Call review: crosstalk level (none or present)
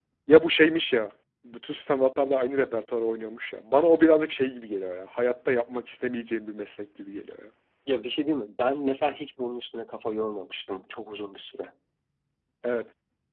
none